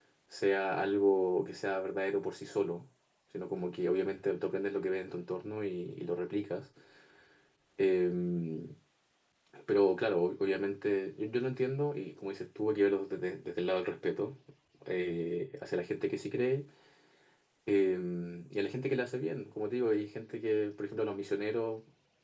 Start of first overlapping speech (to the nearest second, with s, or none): none